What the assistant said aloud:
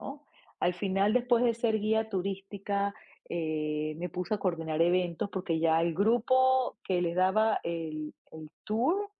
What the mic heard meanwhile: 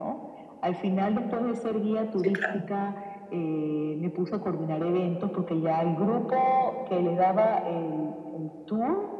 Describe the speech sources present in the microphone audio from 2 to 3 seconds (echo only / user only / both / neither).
both